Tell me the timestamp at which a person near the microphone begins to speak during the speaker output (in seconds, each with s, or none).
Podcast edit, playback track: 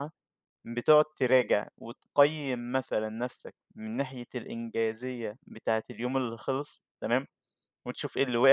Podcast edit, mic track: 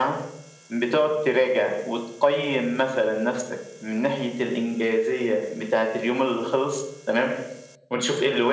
none